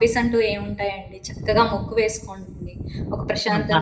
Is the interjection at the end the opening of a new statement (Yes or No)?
No